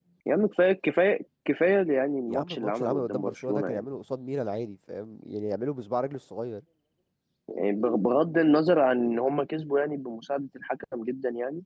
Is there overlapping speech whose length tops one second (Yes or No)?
Yes